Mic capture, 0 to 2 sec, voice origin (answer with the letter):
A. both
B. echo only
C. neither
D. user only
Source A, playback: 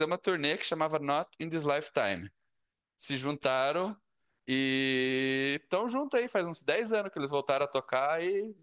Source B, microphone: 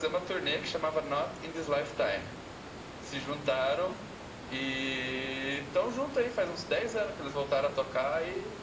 B